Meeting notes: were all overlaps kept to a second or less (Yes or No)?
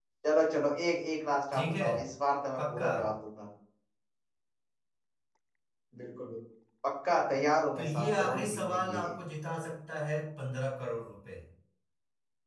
No